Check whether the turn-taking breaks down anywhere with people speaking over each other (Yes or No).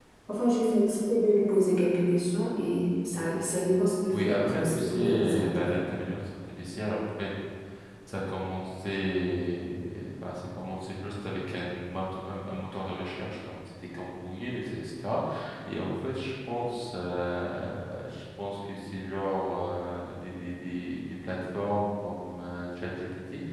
Yes